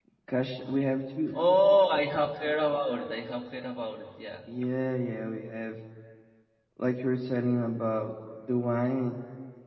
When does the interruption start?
none

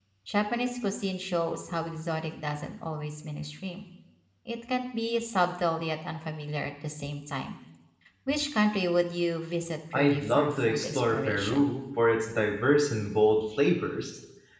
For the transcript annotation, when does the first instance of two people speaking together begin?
10 s

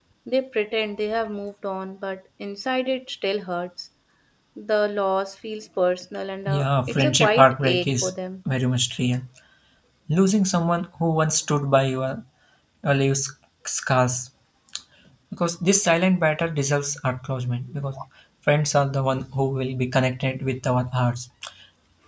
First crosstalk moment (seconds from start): 6 s

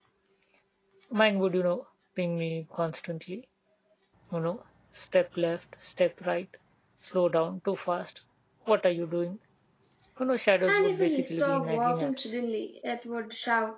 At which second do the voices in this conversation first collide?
11 s

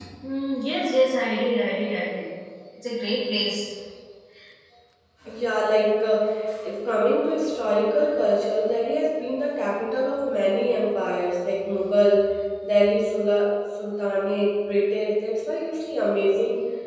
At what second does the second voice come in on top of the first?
none

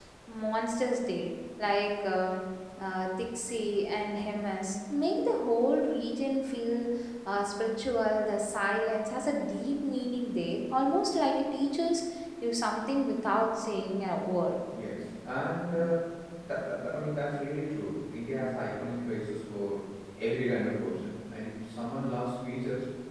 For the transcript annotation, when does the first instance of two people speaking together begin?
none

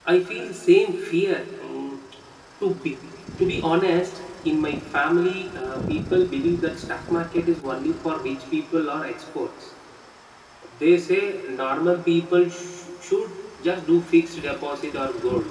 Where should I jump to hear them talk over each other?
none

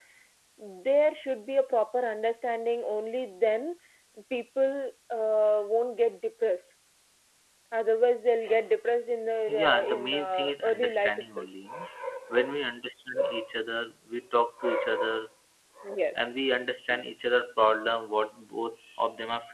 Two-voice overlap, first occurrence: 9 s

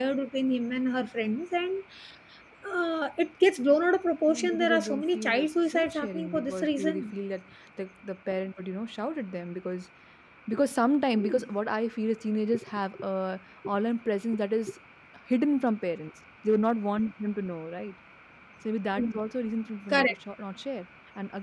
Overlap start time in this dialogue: 4 s

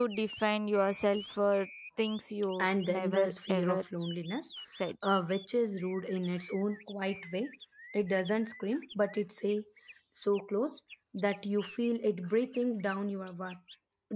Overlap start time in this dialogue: 3 s

